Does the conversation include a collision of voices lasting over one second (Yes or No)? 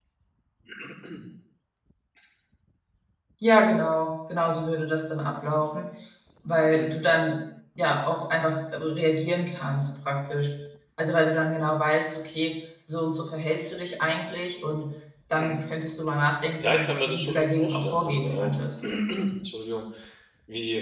Yes